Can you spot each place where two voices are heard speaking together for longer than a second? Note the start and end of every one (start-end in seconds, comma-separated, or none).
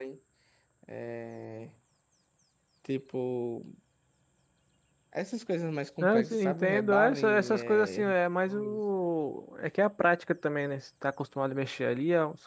6.0-8.0